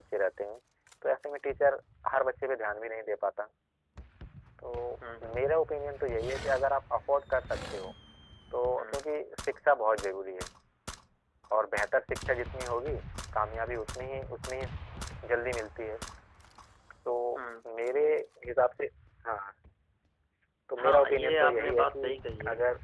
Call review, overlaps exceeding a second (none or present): present